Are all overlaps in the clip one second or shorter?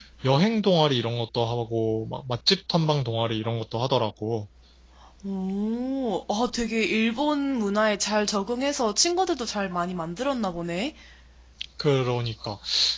Yes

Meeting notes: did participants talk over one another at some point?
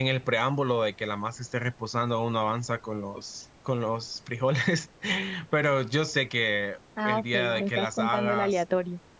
Yes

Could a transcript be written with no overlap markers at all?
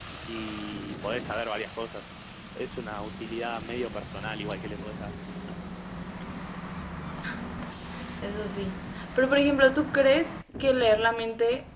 Yes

